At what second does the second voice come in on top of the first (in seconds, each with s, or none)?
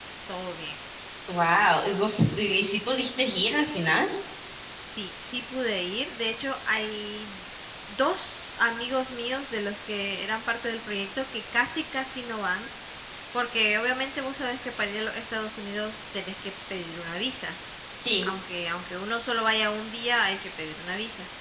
none